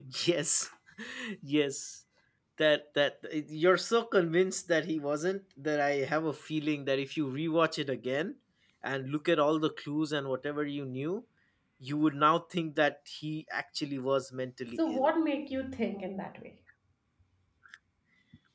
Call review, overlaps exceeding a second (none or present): none